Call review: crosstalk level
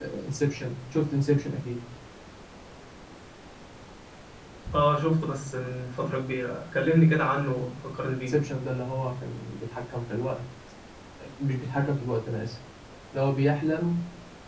none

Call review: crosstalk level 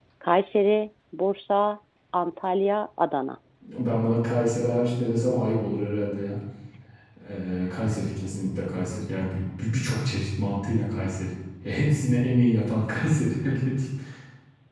none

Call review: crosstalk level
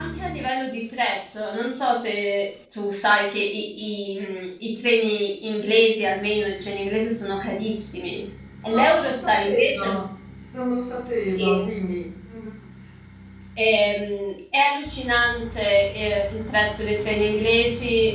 present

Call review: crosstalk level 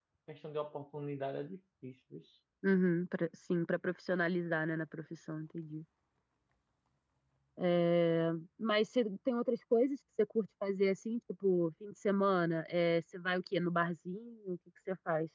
none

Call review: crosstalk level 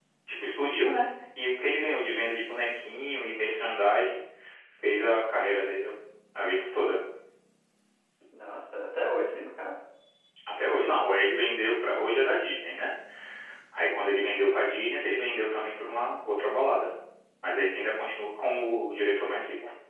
none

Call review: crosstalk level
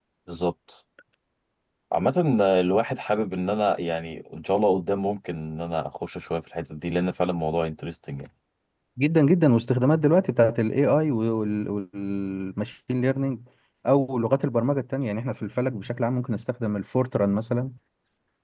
none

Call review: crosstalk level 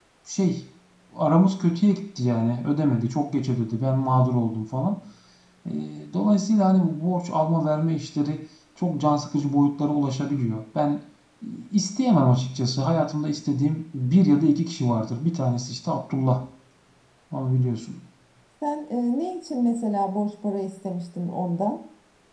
none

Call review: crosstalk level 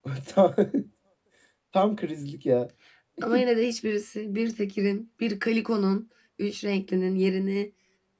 none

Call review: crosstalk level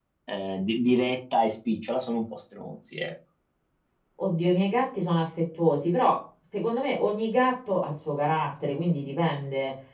none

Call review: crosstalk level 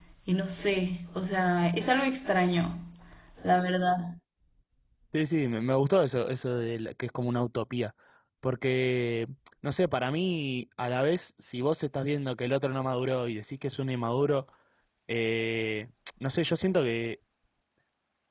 none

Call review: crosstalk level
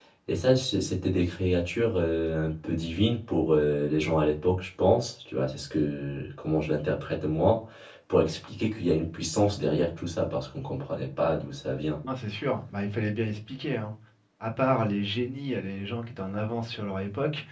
none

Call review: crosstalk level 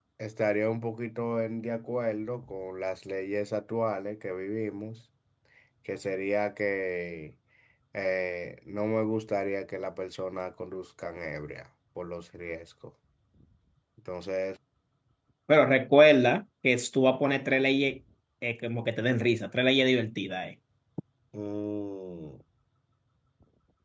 none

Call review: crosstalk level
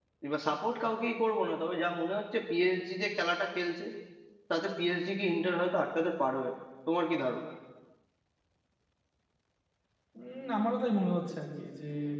none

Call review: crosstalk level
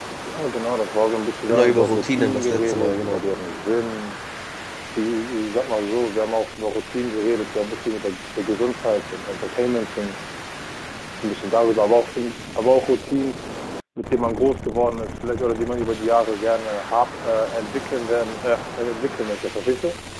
present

